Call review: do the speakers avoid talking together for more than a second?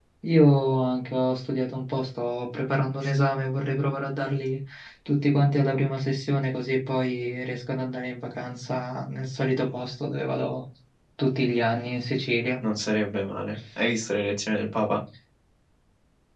Yes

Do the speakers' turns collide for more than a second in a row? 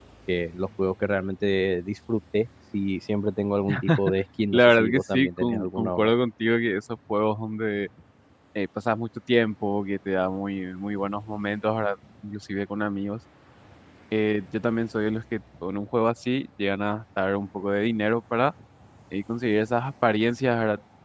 Yes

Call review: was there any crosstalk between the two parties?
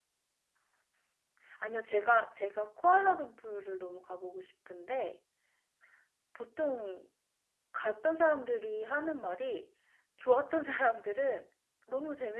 No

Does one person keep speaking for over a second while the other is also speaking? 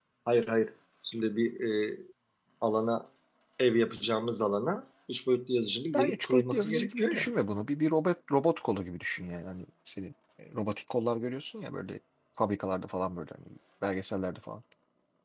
Yes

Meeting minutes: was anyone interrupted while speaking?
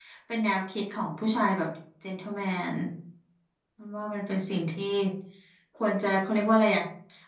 No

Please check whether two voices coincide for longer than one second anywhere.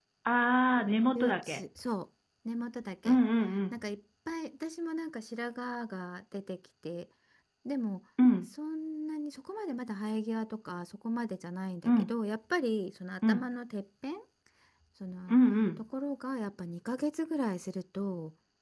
No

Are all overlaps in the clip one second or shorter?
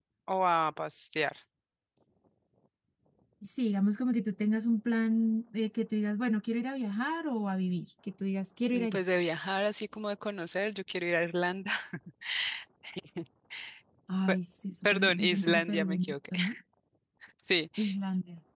No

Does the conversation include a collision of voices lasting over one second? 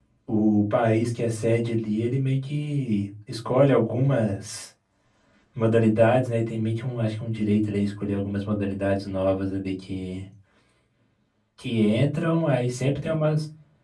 No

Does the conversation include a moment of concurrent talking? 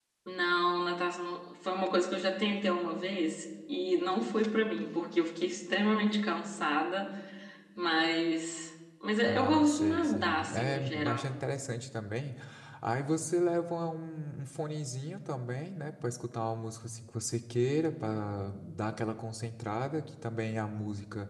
Yes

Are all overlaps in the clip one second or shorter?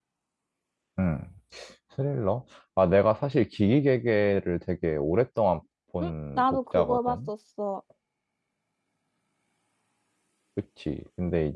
No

